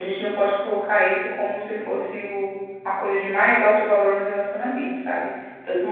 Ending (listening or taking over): listening